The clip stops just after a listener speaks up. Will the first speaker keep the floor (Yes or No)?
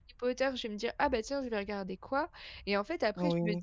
Yes